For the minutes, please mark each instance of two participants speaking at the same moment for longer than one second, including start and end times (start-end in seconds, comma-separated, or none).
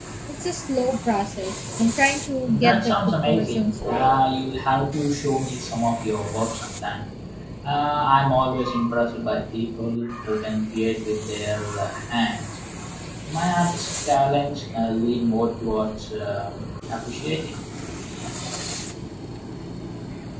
2.5-4.1